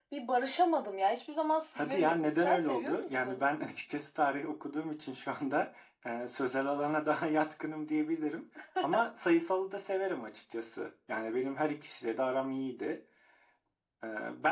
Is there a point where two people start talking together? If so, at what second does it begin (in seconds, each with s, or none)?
1.8 s